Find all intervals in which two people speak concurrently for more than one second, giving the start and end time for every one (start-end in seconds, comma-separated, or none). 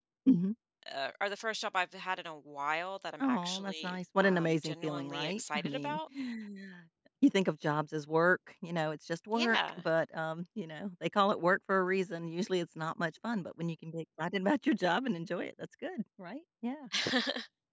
3.2-6.0